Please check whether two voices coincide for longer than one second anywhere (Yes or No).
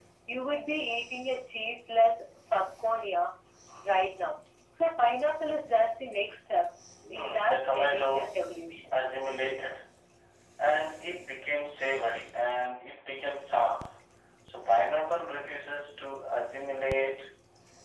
Yes